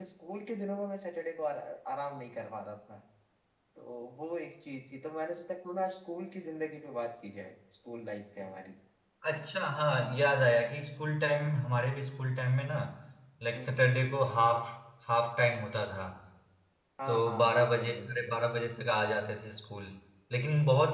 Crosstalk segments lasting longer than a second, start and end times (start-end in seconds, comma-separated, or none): 17.1-18.3